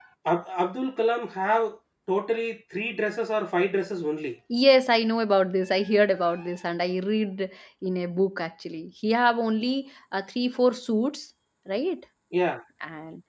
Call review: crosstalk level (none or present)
none